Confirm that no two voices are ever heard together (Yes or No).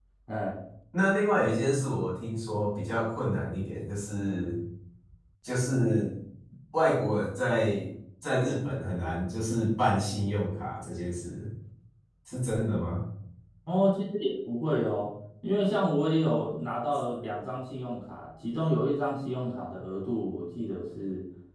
Yes